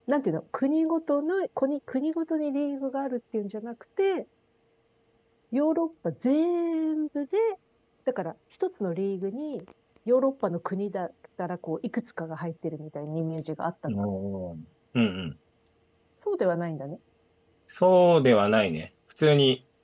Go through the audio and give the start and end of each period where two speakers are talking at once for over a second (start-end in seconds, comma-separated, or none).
none